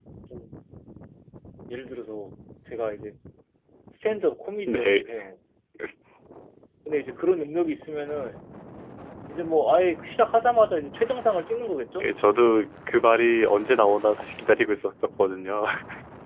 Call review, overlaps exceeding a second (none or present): none